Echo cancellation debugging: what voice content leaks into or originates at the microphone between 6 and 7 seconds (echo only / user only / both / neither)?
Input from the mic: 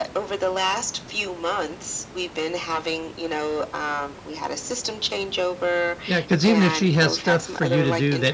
both